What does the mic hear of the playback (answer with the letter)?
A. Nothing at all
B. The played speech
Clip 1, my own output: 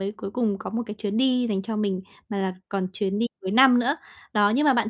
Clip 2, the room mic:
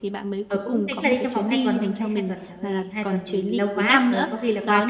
B